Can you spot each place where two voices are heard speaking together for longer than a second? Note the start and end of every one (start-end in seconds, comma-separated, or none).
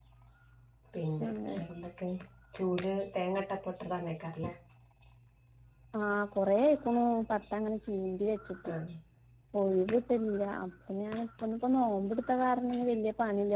none